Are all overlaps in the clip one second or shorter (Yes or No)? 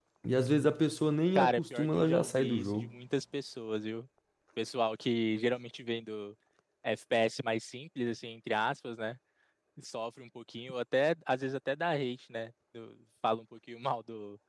No